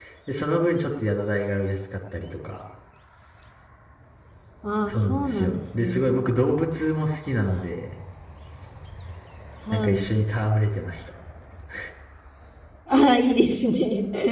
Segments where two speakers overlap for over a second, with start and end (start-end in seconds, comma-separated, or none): 4.9-6.2